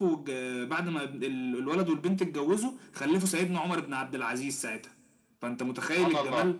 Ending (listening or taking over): taking over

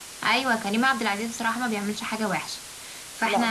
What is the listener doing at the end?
listening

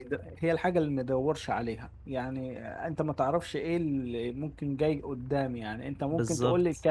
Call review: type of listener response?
listening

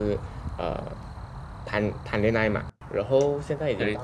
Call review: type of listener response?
listening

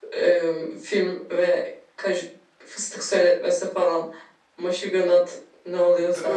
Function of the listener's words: taking over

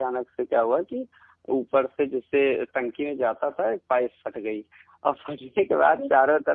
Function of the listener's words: listening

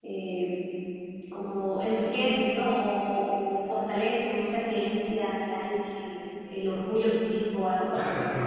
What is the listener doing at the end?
taking over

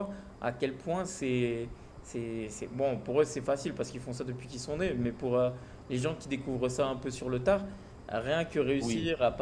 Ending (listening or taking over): listening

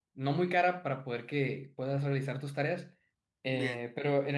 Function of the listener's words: listening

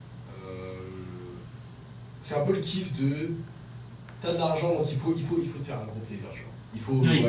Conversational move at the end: listening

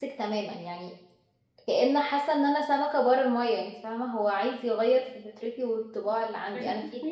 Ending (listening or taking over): taking over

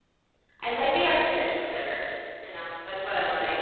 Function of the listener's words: taking over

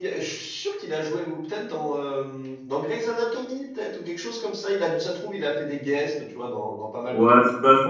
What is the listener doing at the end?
taking over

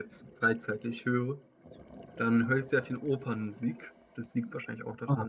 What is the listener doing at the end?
listening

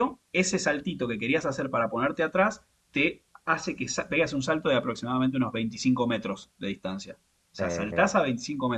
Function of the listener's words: listening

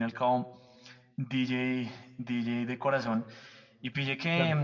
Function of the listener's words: listening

